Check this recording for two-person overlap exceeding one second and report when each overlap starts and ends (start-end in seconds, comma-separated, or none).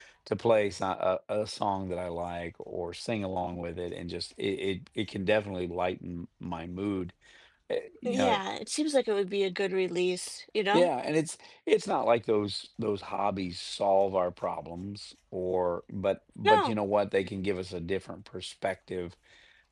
none